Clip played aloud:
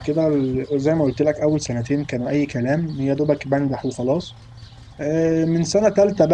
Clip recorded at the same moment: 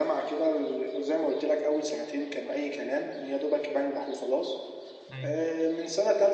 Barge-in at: 5.1 s

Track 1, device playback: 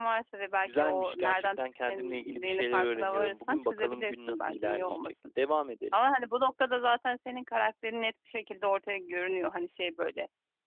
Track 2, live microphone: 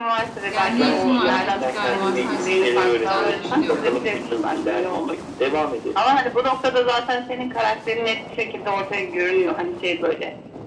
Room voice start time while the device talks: 0.5 s

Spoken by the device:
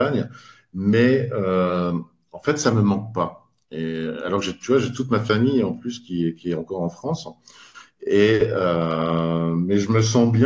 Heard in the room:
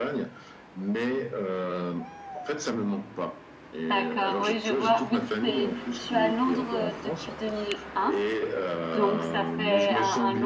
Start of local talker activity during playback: 3.9 s

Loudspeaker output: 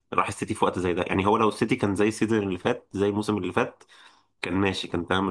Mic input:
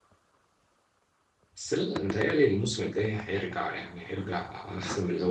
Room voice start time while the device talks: 1.6 s

